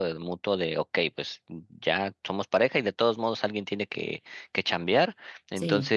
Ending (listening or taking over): listening